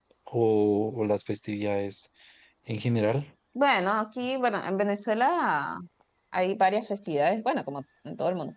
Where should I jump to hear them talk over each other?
none

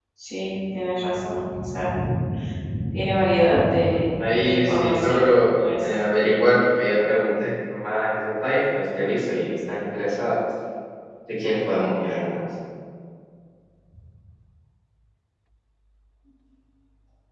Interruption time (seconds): 3.9 s

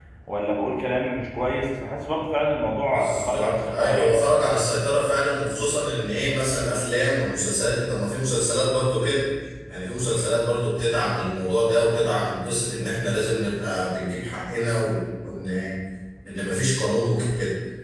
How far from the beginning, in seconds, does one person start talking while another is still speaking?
2.9 s

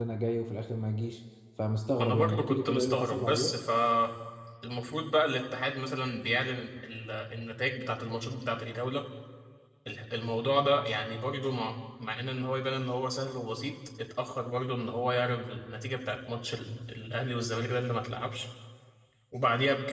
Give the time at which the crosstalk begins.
2.0 s

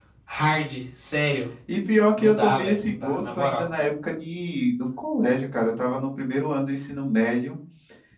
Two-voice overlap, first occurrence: 2.2 s

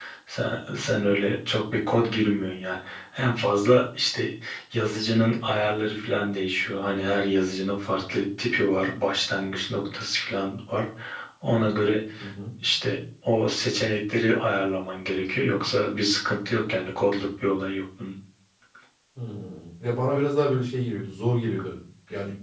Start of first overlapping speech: none

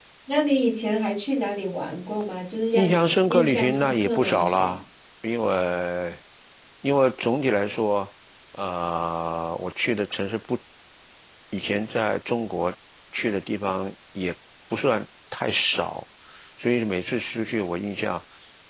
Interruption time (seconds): 2.7 s

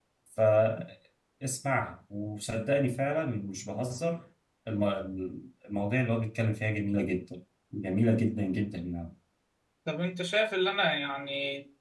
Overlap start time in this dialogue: none

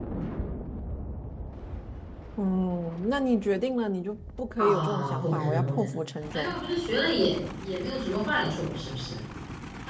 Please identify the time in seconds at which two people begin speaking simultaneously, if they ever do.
4.6 s

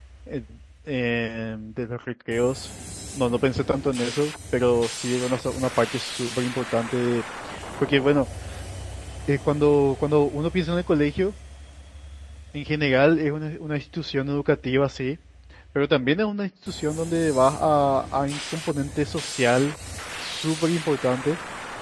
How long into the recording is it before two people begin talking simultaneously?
none

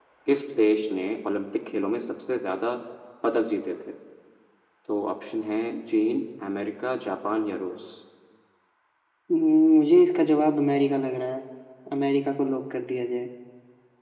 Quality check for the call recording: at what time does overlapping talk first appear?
none

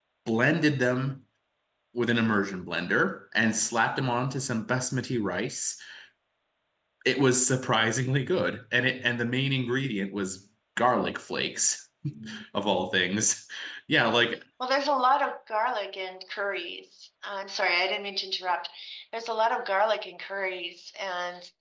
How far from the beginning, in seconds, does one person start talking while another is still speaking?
none

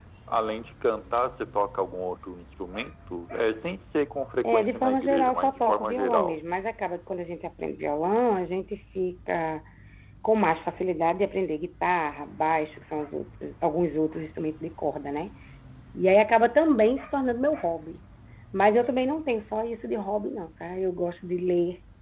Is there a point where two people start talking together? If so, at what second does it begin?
4.4 s

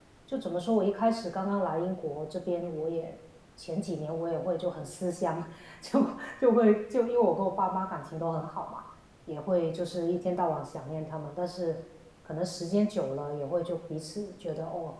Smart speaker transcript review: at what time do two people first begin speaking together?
none

